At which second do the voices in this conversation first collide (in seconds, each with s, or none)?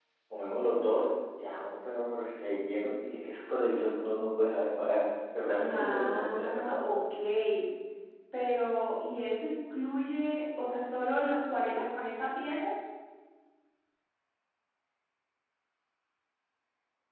5.7 s